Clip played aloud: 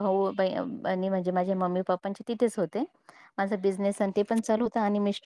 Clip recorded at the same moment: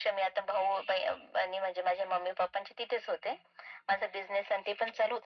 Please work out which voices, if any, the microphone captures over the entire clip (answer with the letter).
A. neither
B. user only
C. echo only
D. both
C